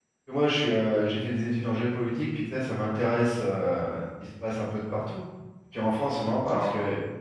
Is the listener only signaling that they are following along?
Yes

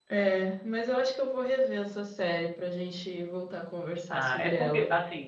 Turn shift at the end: Yes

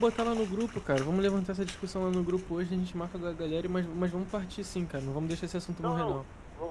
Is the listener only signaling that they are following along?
No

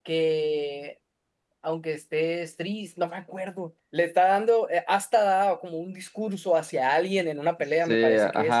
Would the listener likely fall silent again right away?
No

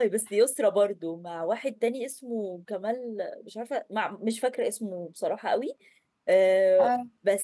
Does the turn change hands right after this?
No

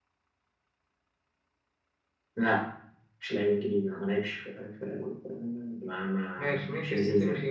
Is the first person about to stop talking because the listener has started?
Yes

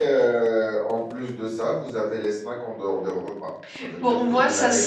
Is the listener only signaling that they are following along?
No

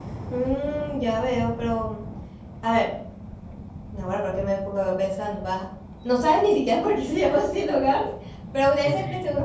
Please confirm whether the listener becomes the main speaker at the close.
No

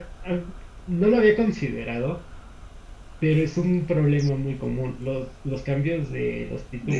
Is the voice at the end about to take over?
Yes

